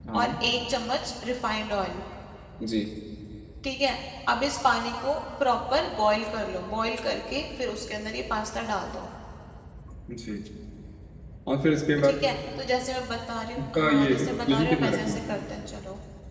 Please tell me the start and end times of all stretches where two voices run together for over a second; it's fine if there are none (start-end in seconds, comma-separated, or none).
13.8-15.2